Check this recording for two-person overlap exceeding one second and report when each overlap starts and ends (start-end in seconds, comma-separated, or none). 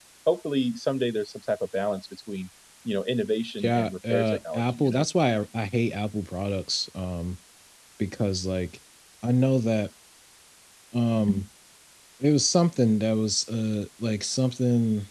3.6-5.0